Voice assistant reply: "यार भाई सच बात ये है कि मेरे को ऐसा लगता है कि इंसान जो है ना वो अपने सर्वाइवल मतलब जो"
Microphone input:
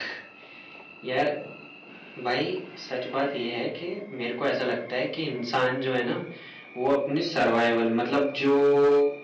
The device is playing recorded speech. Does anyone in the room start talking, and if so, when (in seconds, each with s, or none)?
none